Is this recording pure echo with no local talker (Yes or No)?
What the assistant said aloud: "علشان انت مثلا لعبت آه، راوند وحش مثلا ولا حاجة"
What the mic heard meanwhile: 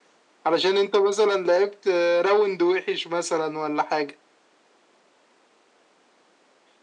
Yes